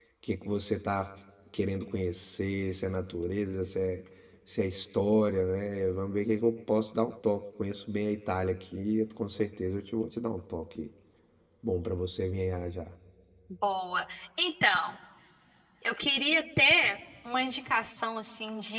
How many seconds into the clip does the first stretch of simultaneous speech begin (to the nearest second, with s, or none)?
none